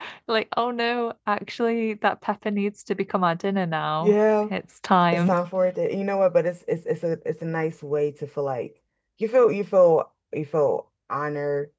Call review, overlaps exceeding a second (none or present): none